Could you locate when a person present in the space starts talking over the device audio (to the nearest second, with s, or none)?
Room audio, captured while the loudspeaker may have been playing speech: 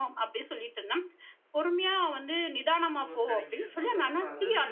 3 s